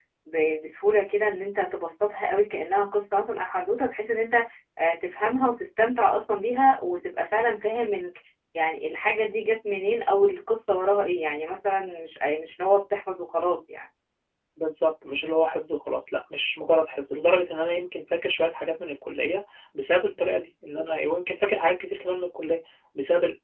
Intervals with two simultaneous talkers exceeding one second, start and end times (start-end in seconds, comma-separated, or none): none